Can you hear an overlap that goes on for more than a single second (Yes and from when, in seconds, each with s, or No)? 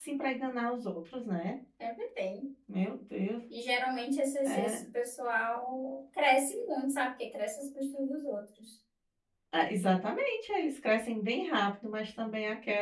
No